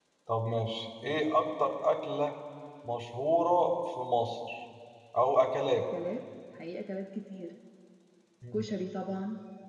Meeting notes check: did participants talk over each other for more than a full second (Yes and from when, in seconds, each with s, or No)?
No